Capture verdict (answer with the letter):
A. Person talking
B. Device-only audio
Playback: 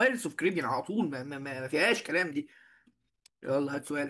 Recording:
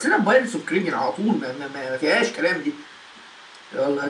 B